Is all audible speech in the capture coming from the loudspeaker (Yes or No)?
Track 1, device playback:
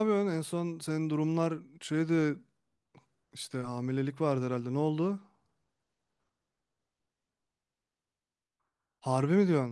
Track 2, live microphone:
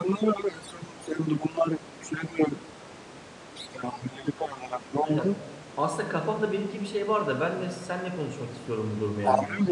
No